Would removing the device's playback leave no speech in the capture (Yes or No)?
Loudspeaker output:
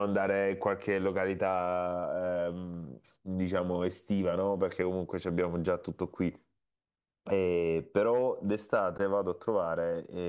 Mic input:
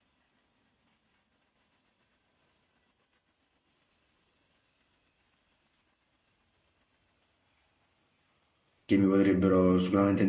No